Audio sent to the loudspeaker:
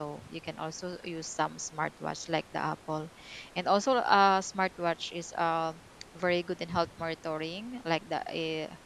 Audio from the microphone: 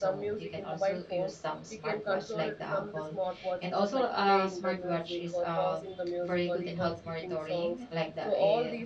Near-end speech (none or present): present